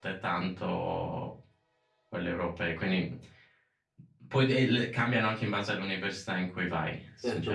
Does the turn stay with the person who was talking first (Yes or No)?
No